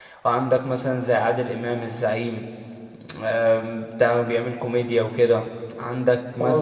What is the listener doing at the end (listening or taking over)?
listening